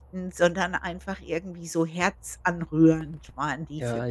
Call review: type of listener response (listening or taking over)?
taking over